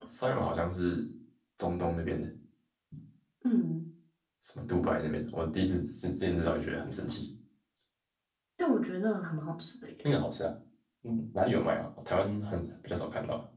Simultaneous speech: No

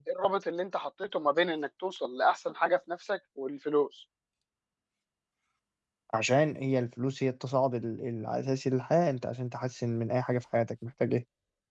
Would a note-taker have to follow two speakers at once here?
No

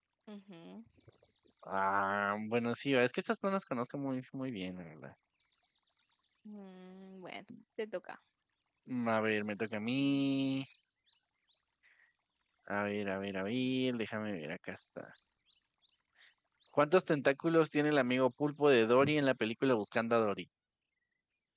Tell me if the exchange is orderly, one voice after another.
Yes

